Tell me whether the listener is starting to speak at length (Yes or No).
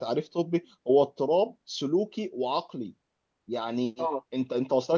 No